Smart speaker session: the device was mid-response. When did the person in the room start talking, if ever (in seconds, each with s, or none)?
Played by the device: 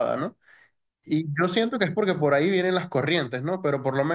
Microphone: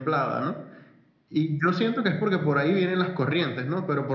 none